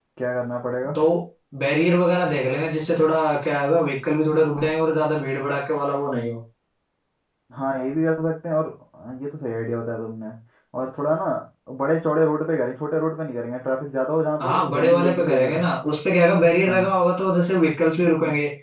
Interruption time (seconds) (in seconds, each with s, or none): 14.4 s